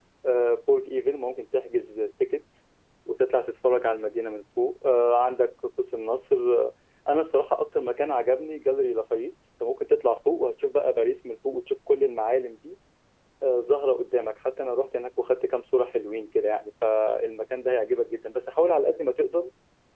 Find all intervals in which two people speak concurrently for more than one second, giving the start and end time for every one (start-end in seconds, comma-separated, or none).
none